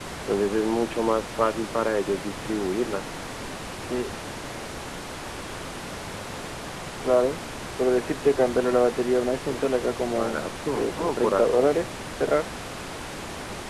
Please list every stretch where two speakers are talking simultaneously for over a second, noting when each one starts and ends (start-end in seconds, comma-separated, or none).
10.1-11.6